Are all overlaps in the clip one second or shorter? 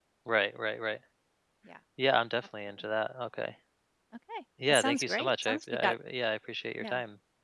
No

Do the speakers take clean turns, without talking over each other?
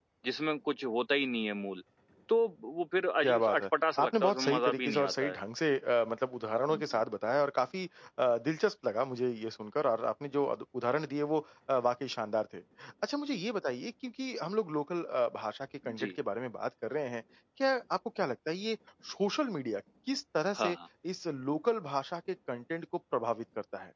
No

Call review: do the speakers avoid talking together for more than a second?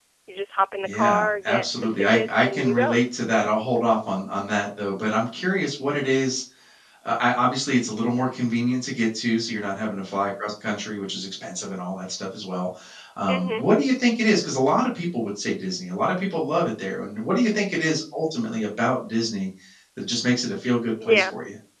No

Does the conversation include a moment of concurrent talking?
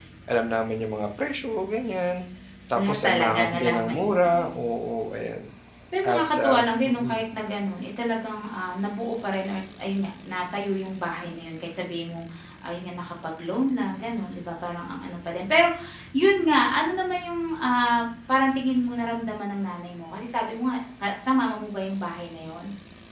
Yes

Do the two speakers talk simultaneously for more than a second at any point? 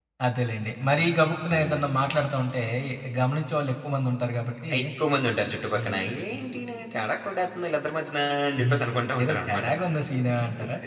No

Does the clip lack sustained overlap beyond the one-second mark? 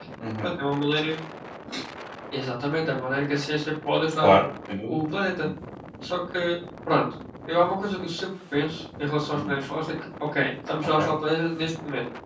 Yes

